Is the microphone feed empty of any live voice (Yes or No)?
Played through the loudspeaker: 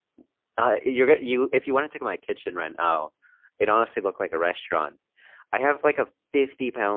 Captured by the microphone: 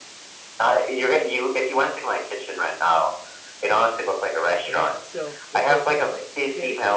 No